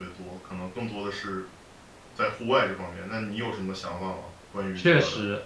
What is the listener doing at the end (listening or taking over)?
taking over